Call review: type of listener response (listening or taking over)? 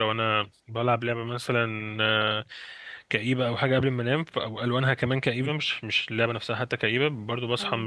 listening